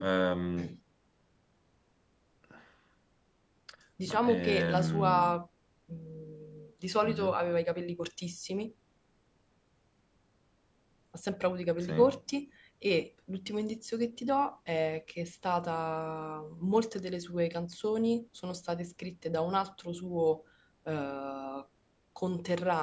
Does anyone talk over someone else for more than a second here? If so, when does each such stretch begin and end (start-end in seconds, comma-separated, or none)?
4.1-5.3